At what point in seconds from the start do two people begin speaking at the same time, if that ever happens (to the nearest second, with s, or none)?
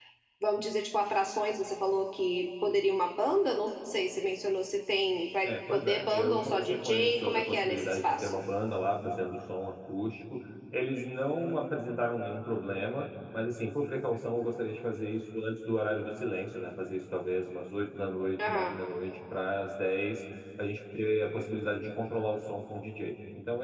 5 s